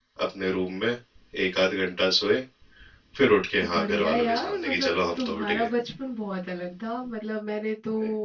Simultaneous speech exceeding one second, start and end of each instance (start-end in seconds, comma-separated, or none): 3.6-5.7